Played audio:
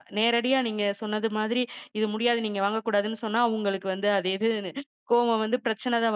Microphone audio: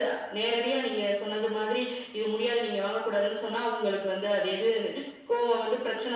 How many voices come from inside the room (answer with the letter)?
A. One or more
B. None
B